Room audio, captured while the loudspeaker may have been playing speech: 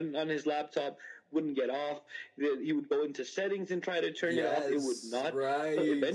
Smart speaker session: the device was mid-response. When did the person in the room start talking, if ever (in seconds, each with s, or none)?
4.2 s